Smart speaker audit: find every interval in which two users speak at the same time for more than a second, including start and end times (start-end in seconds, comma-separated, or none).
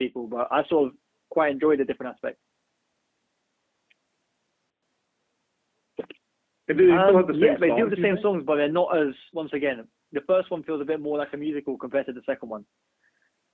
6.9-8.3